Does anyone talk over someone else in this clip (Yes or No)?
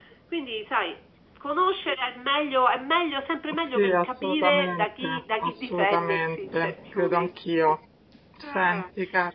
Yes